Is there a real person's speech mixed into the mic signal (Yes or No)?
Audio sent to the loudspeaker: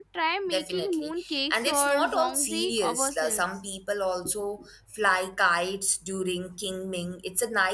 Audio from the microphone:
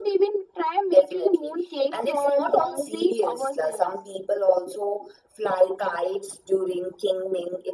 No